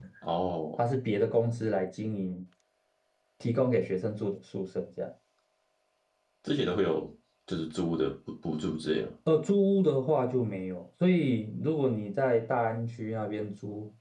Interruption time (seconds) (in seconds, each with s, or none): none